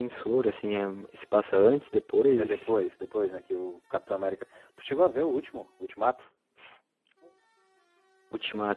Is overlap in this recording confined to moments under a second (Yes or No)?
Yes